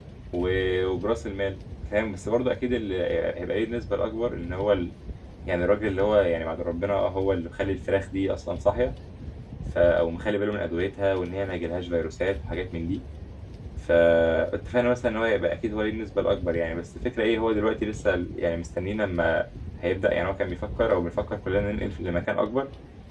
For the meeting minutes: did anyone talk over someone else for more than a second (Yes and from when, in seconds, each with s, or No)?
No